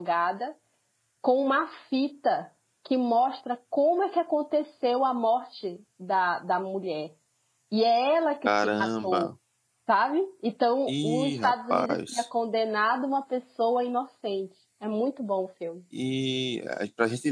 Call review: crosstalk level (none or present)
present